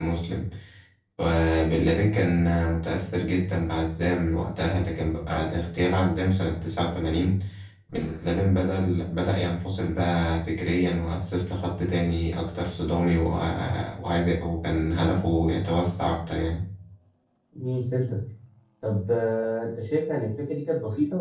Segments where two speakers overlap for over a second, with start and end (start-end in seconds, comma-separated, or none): none